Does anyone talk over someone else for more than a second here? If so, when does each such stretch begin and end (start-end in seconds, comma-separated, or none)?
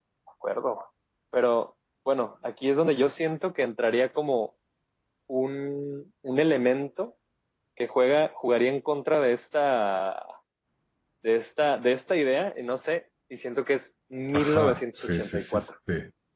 14.3-15.6